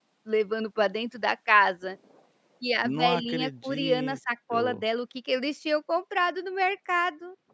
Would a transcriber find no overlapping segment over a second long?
No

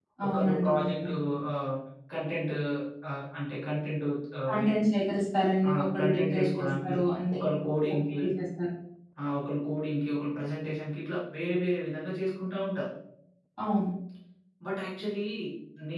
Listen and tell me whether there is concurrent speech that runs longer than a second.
Yes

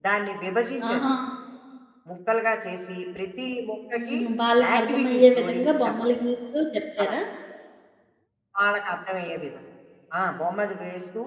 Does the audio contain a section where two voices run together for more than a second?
Yes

